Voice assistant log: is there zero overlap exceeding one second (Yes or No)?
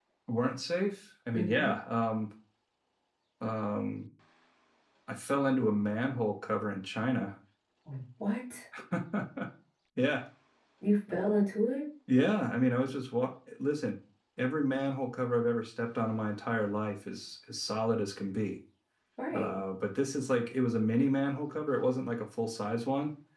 Yes